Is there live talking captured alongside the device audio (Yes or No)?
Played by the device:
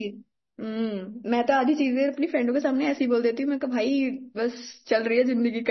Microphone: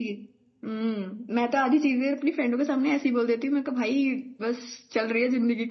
No